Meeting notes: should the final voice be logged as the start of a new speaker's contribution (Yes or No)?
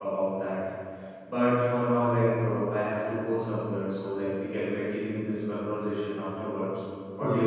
Yes